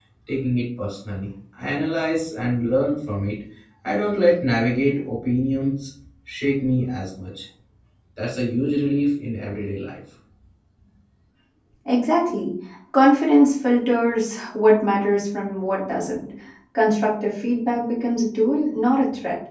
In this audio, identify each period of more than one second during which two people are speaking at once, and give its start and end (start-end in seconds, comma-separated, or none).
none